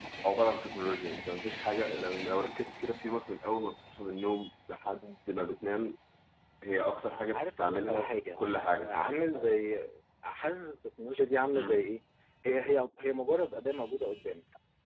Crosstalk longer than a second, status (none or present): present